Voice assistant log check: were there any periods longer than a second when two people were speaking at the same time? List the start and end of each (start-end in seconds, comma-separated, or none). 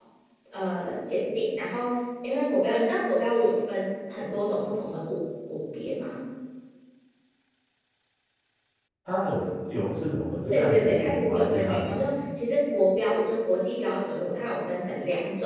10.5-12.2